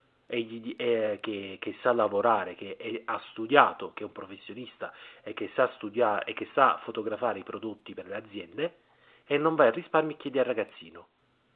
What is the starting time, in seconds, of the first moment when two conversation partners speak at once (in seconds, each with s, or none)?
none